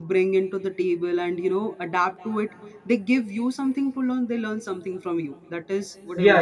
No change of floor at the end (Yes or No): No